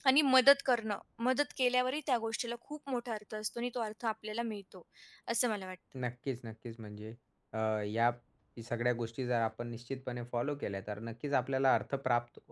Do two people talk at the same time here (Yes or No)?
No